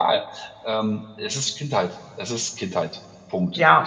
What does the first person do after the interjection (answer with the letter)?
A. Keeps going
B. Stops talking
B